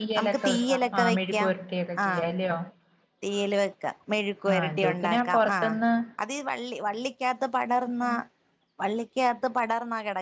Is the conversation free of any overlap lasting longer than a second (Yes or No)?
No